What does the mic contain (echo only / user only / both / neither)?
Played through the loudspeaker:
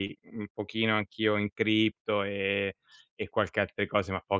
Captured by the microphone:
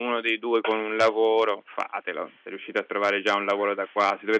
user only